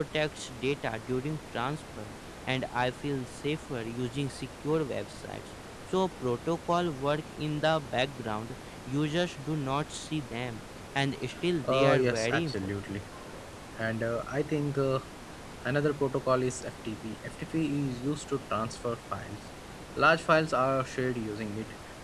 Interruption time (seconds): 11.6 s

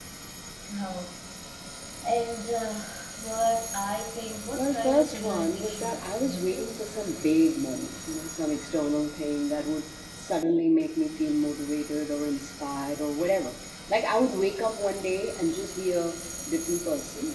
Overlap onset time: 4.5 s

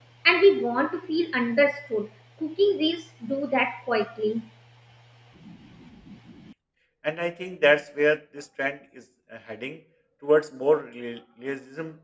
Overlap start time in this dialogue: none

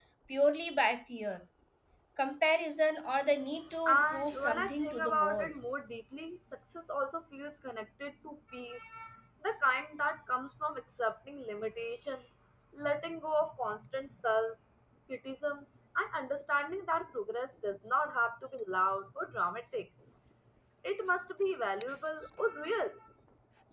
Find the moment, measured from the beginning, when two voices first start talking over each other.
3.9 s

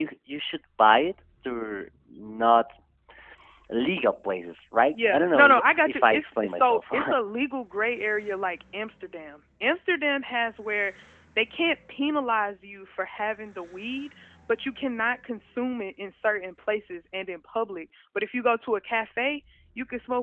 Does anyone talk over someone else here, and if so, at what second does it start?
4.9 s

